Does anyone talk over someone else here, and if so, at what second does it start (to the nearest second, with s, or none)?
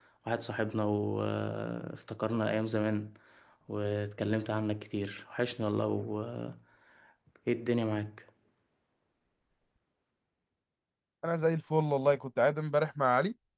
none